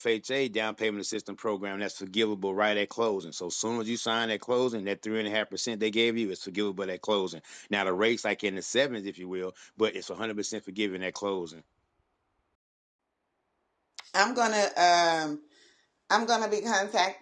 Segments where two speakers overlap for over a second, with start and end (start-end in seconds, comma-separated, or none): none